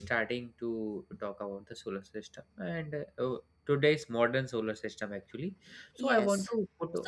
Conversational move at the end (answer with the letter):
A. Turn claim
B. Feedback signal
A